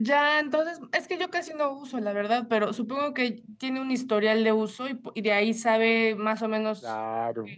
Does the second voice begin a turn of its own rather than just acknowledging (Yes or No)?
Yes